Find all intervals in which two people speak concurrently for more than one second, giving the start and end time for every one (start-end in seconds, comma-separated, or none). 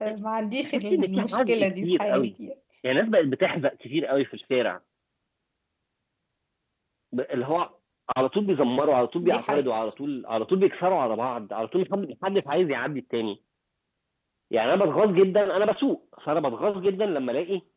0.6-2.3